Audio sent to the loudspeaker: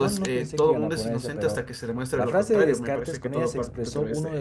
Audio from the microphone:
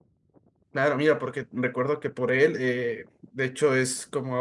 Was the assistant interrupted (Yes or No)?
Yes